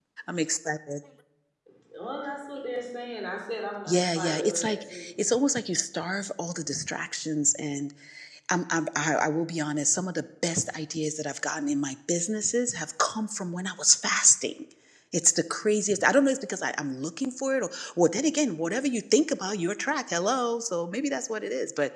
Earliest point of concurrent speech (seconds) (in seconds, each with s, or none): 3.9 s